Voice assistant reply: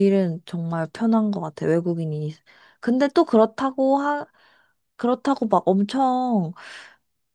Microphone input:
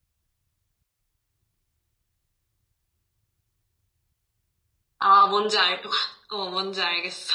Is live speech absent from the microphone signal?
No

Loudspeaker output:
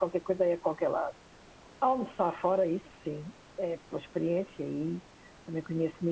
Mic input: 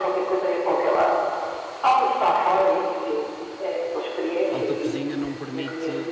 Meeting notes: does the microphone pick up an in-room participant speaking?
Yes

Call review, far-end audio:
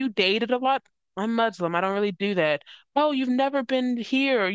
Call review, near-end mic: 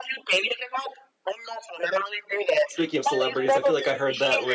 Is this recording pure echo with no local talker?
No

